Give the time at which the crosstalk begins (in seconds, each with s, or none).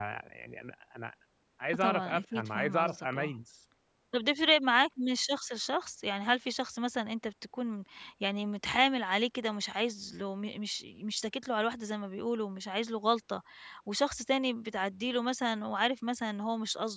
1.7 s